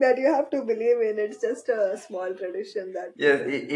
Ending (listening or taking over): taking over